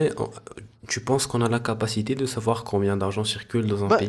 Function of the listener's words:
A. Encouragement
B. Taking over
B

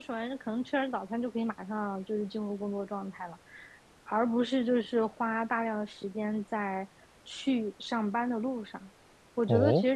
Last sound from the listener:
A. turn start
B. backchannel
B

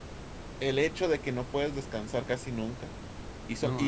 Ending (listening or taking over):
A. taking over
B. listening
B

